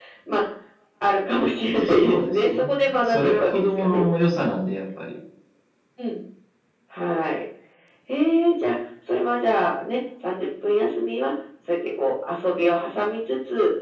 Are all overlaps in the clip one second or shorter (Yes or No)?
No